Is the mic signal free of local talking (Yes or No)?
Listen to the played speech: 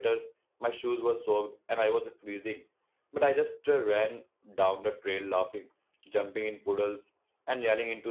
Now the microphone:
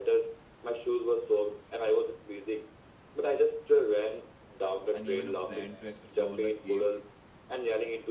No